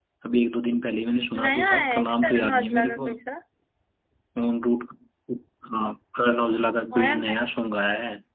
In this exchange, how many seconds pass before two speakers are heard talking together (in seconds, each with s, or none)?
1.4 s